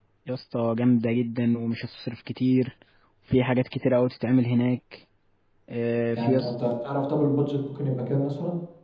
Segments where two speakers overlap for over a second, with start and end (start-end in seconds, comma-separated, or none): none